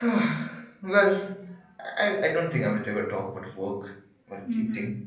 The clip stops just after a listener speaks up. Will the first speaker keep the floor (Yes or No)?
Yes